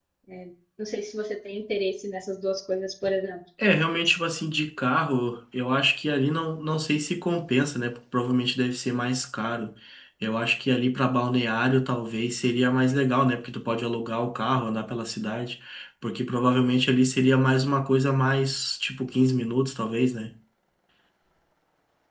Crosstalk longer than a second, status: none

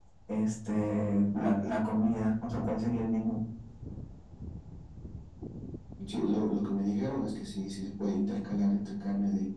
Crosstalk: none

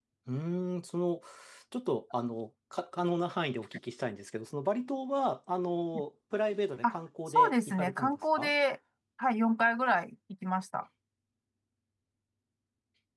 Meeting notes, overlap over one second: present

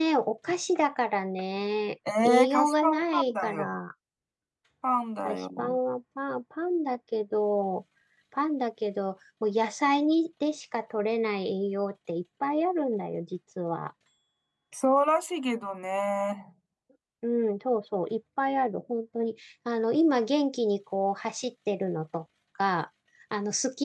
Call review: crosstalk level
present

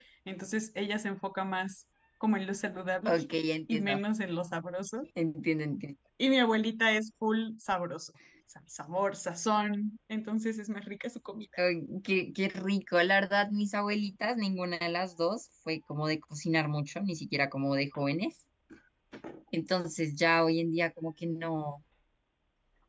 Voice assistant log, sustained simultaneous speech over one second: none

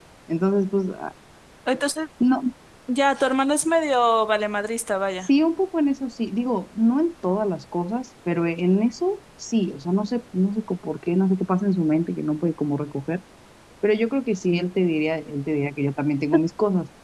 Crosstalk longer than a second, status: none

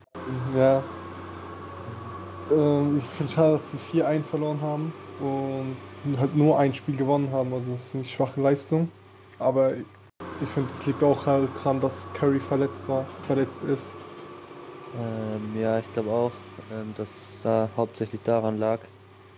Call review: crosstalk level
none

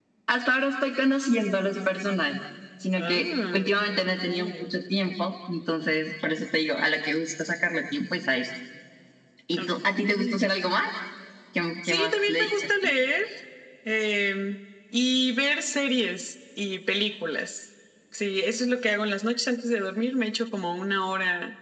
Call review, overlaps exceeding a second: present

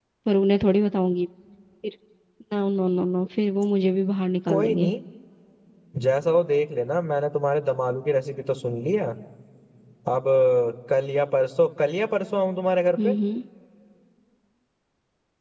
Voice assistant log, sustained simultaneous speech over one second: none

